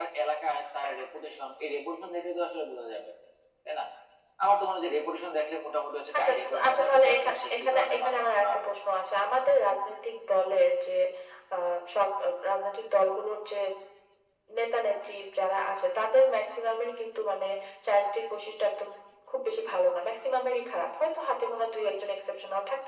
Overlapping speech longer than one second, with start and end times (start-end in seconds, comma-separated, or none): 6.2-8.4